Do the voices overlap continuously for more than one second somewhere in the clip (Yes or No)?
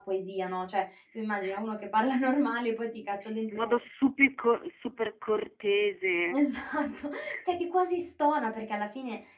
No